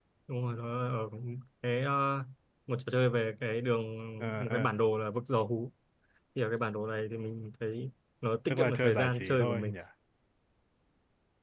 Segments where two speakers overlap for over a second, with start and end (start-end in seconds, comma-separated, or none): 8.5-9.8